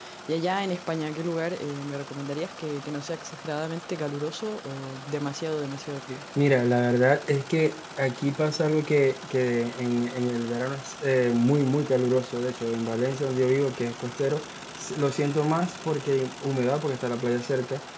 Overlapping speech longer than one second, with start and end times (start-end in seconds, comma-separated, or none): none